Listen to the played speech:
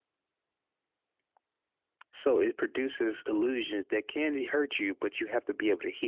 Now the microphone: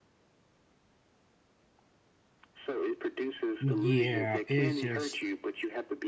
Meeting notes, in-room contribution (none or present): present